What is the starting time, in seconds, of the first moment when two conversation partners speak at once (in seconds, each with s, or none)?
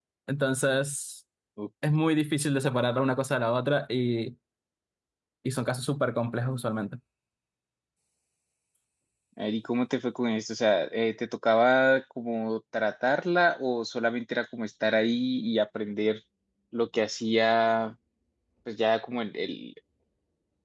none